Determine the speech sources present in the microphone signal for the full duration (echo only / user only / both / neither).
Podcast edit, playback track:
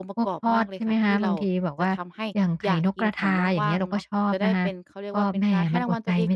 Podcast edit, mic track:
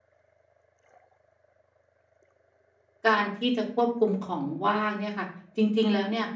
user only